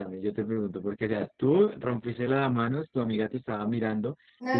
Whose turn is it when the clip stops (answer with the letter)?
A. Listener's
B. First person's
A